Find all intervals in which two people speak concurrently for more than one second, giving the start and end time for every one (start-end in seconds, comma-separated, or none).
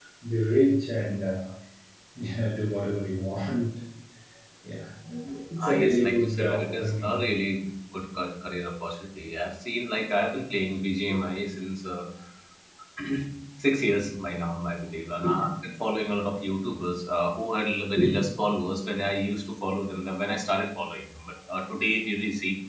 5.6-7.2